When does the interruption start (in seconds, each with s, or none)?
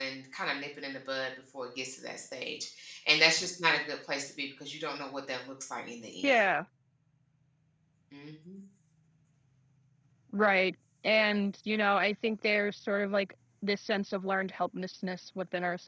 none